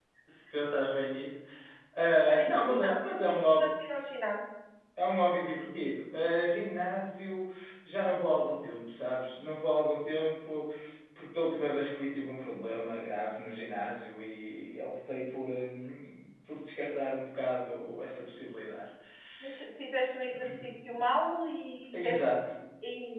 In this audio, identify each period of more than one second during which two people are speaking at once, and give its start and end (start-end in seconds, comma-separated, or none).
2.3-3.7